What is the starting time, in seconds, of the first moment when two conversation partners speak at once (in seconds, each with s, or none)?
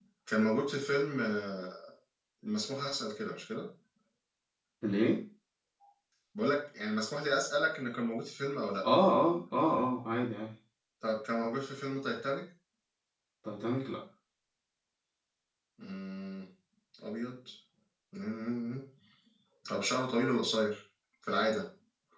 none